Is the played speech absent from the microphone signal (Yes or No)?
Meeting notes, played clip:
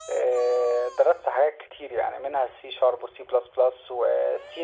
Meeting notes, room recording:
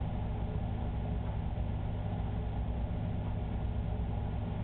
Yes